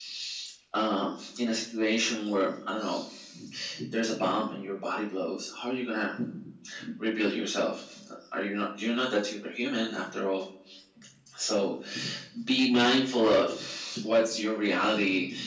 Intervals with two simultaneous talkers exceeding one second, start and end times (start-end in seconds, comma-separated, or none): none